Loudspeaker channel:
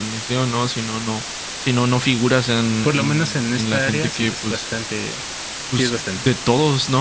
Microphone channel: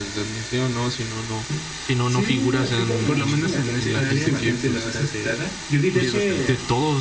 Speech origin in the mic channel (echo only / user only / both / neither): both